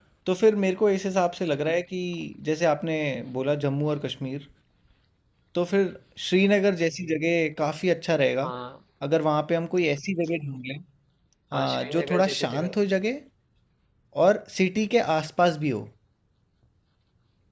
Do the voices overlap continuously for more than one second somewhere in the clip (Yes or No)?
Yes